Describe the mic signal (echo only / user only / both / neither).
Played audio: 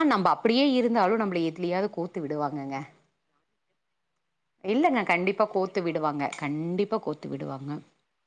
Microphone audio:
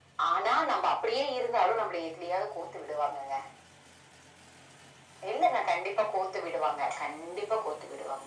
echo only